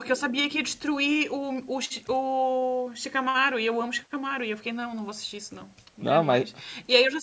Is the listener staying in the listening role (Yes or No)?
Yes